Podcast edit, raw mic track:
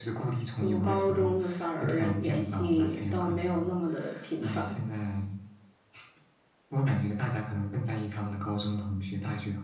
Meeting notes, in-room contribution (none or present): none